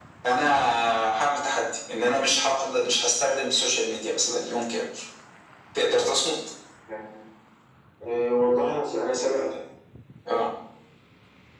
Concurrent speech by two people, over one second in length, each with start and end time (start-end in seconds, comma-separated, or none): none